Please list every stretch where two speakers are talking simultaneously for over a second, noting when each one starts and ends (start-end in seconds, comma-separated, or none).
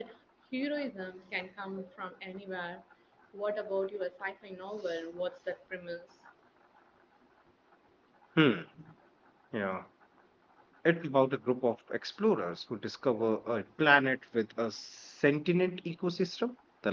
none